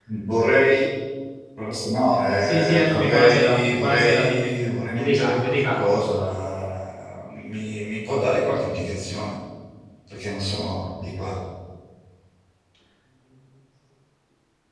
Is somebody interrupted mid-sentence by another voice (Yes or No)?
Yes